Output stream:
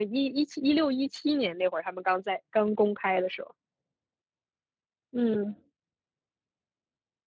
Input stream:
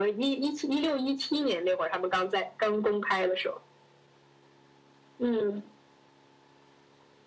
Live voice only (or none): none